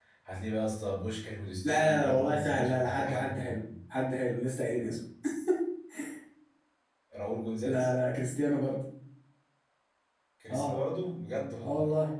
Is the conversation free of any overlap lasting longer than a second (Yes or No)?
No